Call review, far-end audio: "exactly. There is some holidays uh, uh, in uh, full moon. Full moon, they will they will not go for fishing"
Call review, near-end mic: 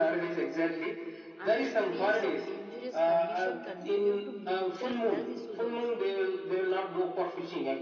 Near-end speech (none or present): present